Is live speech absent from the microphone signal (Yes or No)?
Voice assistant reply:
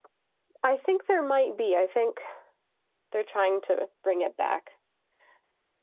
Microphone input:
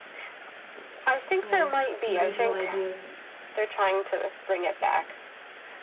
No